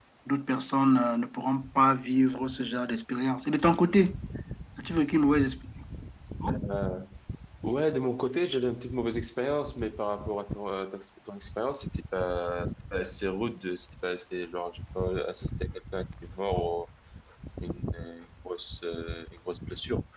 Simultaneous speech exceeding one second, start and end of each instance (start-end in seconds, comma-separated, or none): none